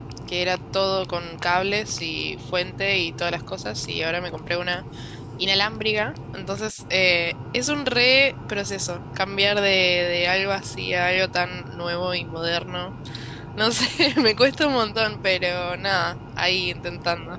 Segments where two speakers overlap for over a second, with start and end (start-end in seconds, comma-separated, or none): none